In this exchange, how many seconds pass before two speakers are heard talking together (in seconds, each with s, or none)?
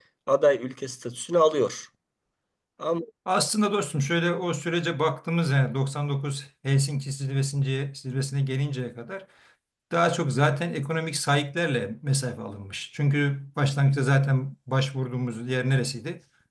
none